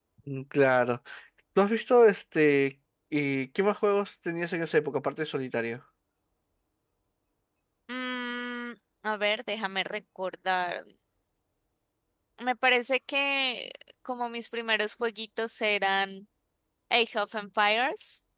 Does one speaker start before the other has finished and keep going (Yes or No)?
No